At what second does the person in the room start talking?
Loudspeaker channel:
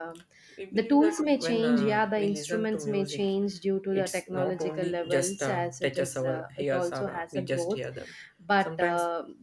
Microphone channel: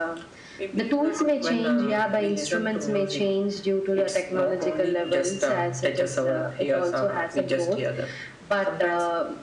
none

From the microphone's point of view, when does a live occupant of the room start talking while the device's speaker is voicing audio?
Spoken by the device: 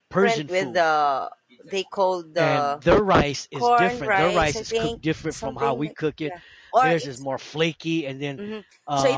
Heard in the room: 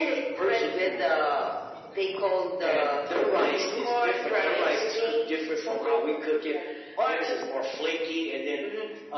3.3 s

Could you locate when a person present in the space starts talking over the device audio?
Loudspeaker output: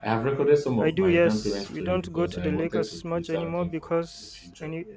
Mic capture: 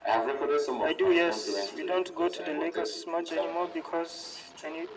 none

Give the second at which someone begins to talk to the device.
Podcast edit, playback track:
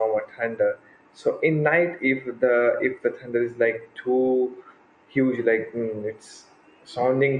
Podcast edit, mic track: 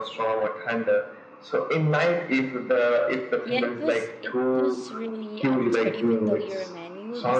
3.4 s

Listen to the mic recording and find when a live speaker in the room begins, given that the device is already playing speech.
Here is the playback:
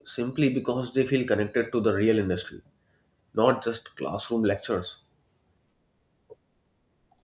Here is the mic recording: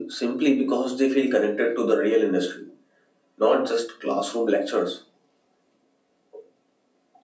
none

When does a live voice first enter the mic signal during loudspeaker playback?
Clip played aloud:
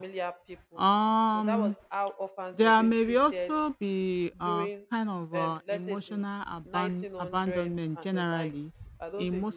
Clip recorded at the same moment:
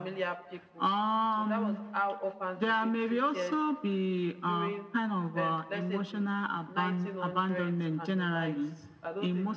none

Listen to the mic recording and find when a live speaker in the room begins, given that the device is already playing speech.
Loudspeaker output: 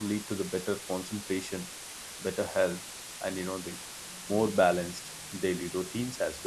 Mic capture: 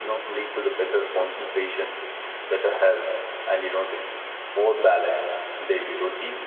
none

